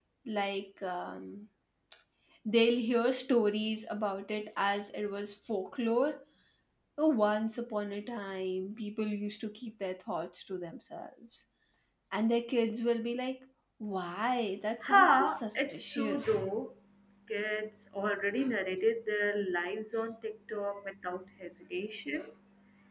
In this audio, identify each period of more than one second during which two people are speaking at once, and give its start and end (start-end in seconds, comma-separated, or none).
14.9-16.4